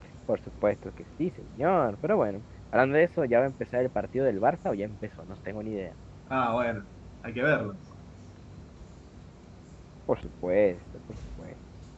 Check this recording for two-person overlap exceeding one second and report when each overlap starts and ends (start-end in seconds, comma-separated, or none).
none